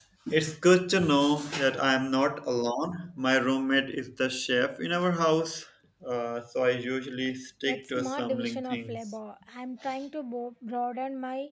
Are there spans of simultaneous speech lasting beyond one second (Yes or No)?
Yes